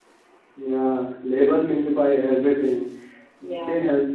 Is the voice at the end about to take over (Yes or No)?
No